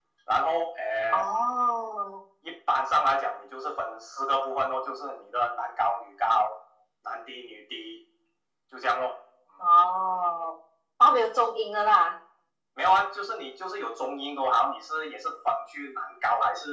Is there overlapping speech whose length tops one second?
No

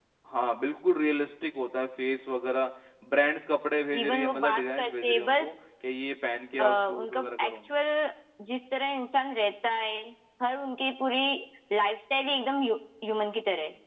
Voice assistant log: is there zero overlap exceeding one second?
No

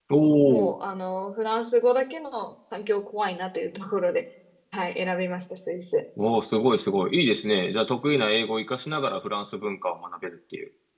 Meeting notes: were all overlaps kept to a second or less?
Yes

